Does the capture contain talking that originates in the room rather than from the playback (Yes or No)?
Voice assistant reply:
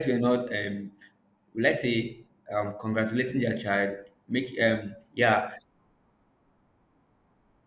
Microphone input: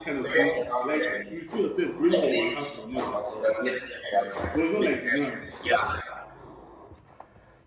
Yes